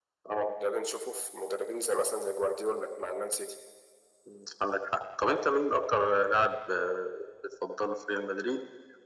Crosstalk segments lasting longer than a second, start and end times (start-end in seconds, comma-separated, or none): none